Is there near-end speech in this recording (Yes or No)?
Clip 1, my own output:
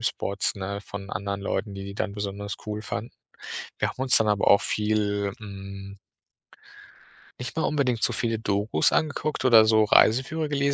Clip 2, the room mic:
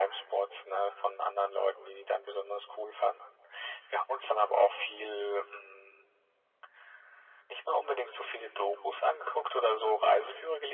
No